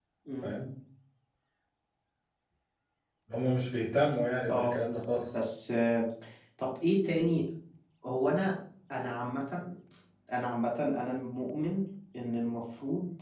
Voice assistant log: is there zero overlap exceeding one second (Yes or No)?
Yes